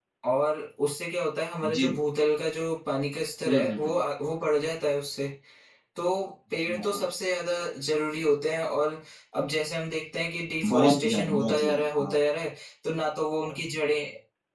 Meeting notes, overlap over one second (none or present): present